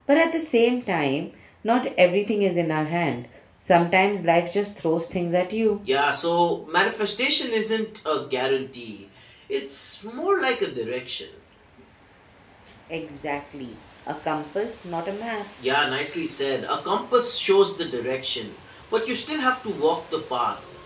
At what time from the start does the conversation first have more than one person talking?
none

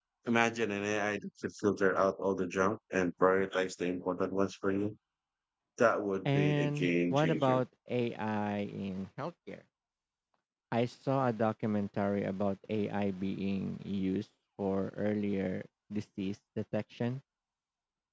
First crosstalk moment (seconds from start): 6.2 s

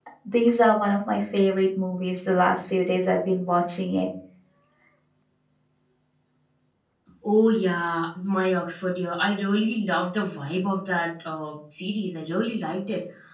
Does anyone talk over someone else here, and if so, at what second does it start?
none

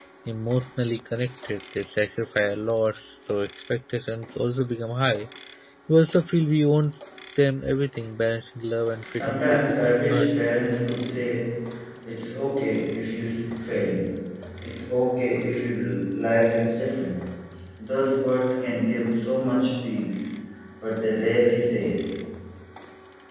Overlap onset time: 9.0 s

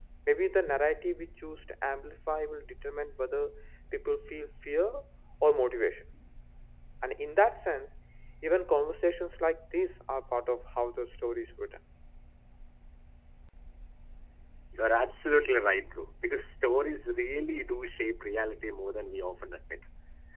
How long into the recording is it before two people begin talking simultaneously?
none

